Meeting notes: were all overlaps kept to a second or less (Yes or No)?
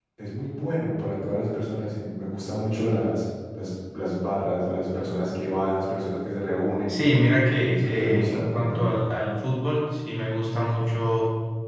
No